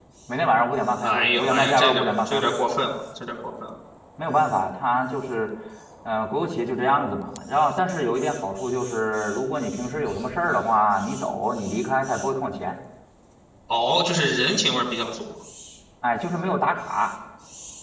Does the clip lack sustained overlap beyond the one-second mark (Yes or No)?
No